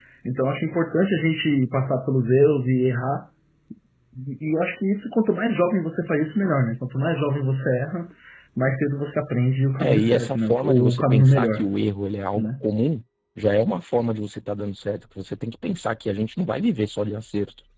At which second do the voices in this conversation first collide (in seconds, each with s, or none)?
9.8 s